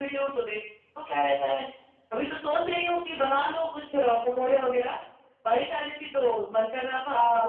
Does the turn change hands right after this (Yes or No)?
Yes